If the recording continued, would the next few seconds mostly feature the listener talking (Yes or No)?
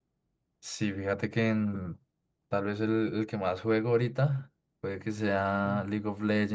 No